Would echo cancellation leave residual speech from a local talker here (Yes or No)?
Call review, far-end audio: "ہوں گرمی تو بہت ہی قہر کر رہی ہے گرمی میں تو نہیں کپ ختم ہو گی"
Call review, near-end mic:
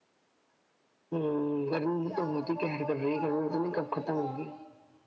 Yes